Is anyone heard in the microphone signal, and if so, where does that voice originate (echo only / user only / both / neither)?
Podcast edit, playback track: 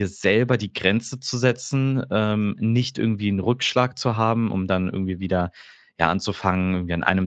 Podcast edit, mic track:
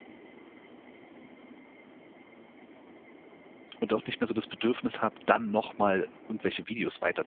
user only